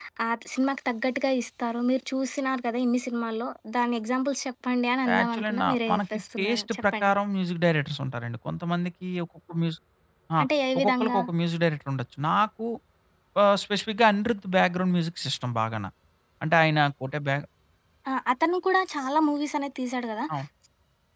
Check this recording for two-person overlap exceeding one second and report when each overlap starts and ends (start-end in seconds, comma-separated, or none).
5.2-7.1